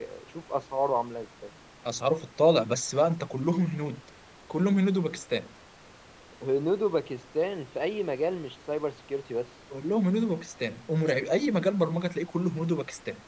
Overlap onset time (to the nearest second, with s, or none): none